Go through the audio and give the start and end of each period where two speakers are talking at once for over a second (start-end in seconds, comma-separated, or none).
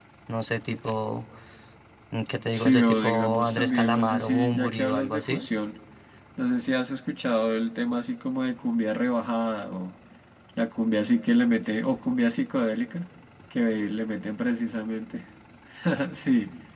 2.5-5.5